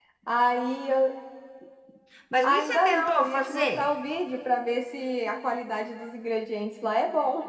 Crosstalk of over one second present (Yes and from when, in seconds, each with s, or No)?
Yes, from 2.4 s